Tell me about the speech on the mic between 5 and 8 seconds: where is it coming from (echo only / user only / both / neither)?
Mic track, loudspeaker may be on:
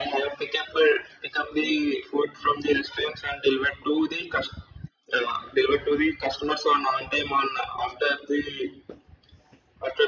echo only